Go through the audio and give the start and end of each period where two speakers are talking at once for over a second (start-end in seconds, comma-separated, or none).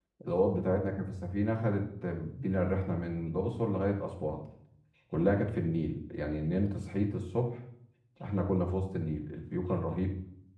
none